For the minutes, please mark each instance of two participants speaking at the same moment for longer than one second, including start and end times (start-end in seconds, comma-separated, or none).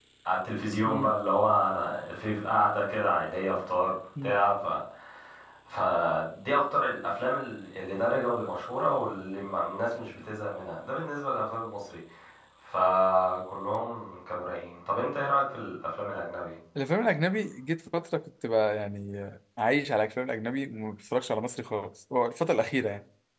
none